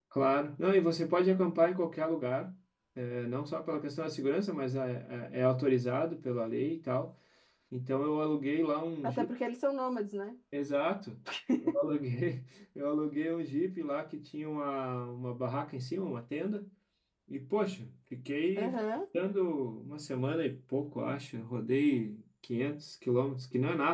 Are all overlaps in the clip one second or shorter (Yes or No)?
Yes